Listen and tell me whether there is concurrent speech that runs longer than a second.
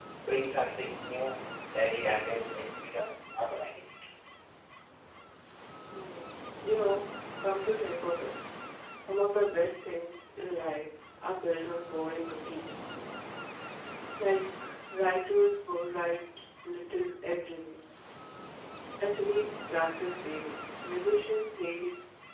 No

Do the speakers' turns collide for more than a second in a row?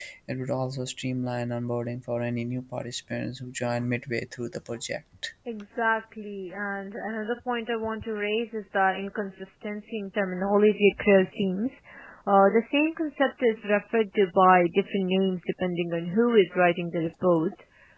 No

